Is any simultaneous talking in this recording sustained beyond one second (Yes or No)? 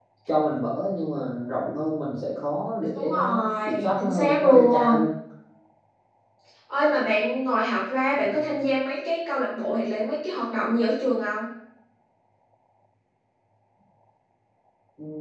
Yes